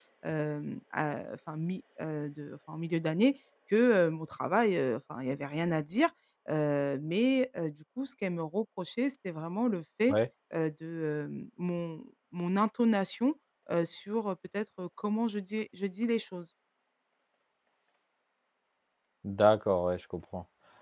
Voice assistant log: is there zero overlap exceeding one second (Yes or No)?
Yes